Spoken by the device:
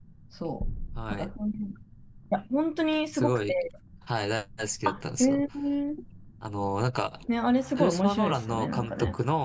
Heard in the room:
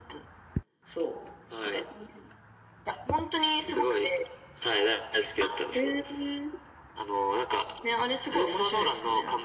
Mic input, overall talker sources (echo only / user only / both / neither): echo only